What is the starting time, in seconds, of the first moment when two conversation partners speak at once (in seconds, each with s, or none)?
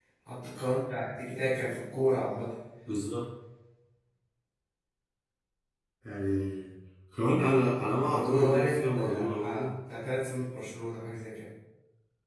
8.0 s